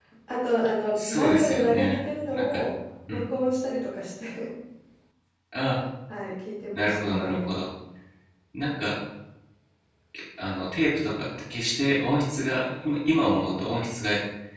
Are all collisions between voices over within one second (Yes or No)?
No